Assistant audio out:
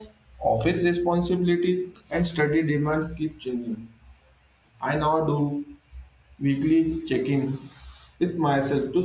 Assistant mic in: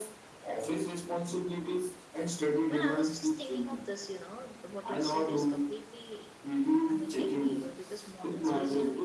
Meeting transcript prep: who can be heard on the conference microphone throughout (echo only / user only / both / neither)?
both